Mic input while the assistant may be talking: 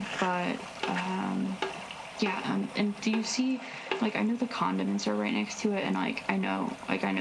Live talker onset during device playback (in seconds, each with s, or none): none